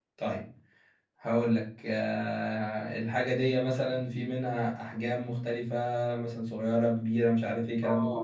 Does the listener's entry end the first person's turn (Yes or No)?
Yes